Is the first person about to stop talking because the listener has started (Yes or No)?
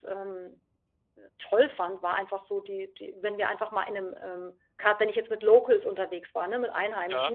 No